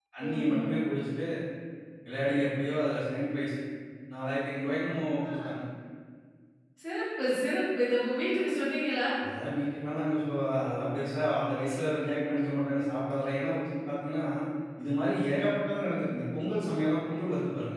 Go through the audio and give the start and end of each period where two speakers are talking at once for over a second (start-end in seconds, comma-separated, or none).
none